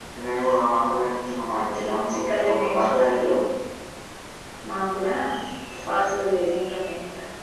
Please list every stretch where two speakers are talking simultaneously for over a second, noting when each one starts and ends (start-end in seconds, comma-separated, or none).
1.6-3.1